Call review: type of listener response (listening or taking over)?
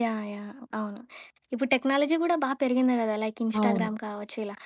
listening